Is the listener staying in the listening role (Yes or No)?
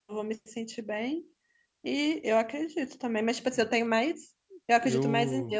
Yes